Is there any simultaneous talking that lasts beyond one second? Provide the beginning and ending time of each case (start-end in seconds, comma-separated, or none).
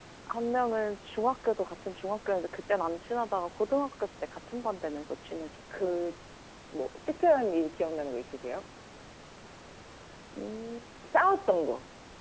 none